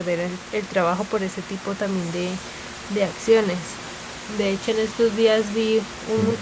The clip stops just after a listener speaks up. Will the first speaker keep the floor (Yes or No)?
Yes